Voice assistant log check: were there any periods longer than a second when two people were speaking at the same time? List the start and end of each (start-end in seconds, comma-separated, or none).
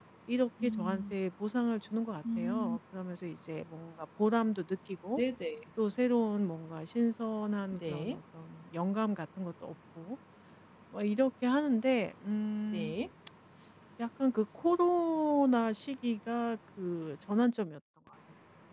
none